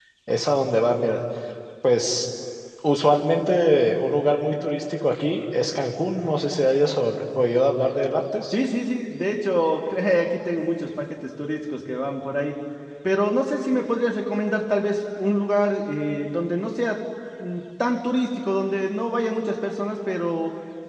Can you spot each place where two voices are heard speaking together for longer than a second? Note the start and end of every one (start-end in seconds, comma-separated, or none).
none